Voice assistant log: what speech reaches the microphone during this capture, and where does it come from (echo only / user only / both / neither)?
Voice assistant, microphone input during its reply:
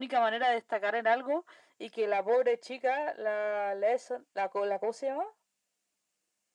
echo only